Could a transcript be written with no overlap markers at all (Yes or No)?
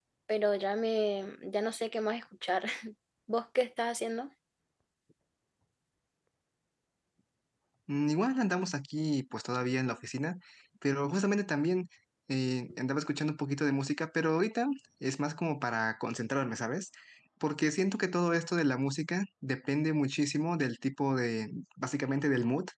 Yes